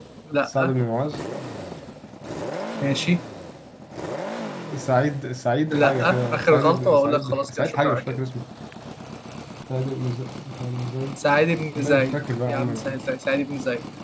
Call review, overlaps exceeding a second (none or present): present